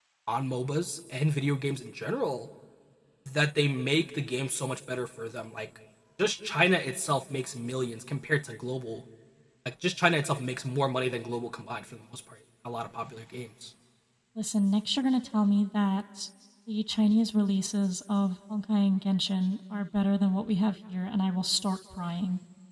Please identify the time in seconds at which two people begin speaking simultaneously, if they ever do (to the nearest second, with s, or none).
none